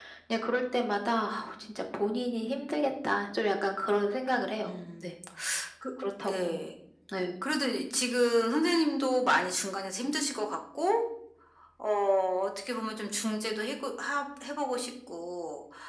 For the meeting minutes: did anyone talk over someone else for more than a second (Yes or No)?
No